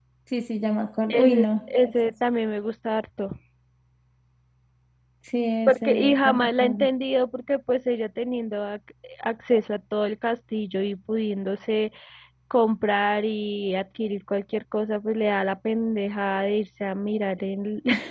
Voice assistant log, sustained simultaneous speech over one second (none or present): present